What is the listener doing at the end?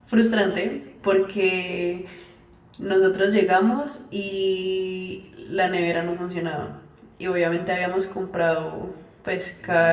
listening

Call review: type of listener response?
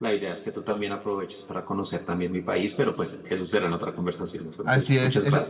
taking over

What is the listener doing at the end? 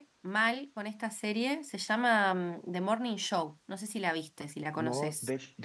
taking over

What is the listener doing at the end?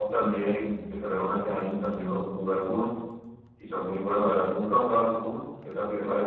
taking over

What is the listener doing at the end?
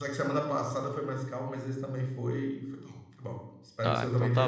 taking over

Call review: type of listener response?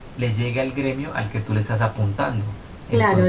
taking over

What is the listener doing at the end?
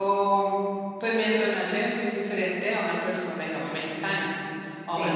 listening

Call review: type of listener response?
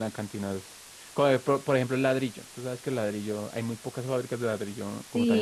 taking over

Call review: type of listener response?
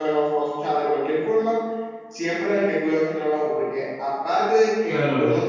listening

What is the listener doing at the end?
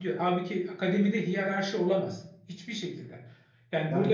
listening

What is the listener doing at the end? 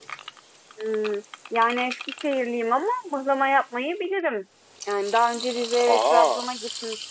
listening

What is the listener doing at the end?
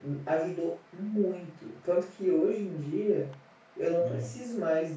listening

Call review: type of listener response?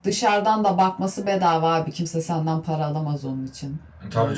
taking over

